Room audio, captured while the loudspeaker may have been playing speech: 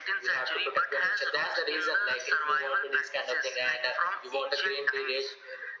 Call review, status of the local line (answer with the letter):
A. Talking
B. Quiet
B